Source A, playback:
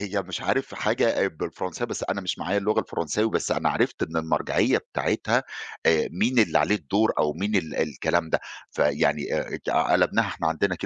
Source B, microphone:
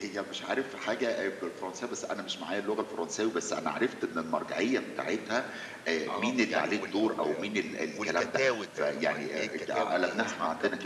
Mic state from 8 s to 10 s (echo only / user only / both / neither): both